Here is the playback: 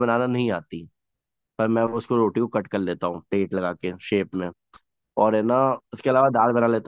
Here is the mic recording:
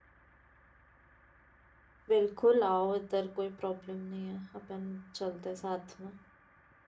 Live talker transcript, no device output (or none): बिल्कुल आओ इधर कोई प्रॉब्लम नहीं है अपन चलते हैं साथ में